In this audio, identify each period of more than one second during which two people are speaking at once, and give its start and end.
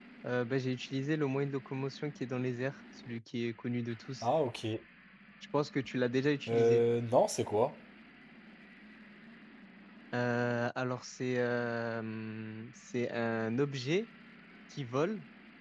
none

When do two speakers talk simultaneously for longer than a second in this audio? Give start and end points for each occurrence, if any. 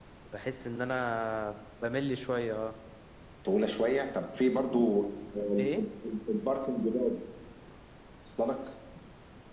none

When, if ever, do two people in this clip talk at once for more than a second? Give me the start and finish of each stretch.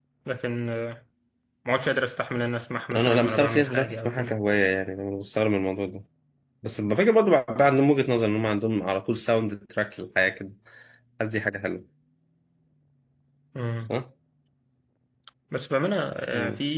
3.0-4.3

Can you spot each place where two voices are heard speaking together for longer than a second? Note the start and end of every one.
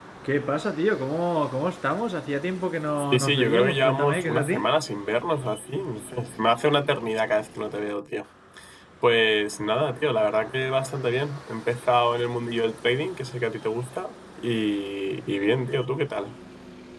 3.1-4.7

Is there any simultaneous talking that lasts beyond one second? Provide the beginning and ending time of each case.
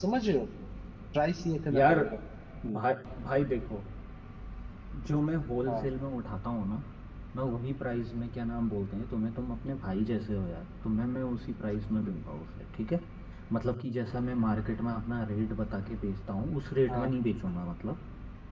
none

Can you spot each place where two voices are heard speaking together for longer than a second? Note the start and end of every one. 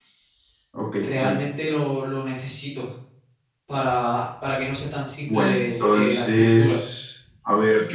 5.3-6.8

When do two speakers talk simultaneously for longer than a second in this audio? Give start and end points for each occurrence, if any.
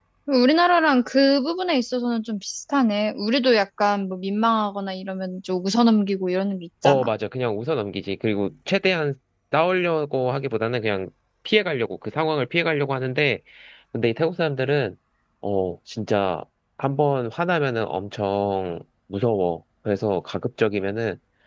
none

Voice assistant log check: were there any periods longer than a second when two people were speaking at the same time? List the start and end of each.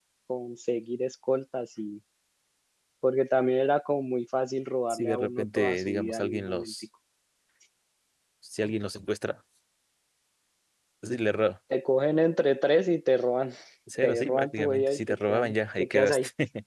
4.9-6.7, 14.0-16.2

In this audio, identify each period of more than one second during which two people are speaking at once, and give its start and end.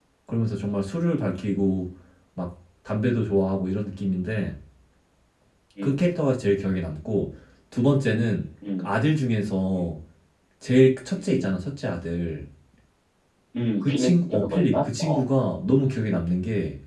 13.8-15.2

